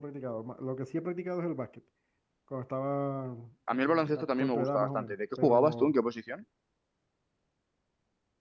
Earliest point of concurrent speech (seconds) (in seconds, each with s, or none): 3.7 s